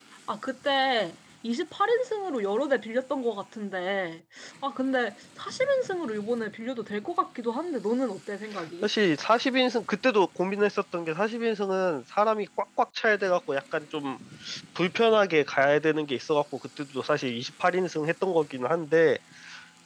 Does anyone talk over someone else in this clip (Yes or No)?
No